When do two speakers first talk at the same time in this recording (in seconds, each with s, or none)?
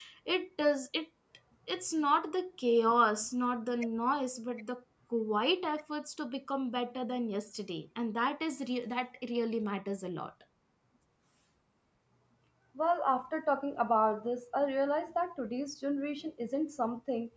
none